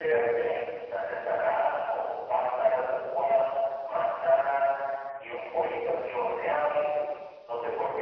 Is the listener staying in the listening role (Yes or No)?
No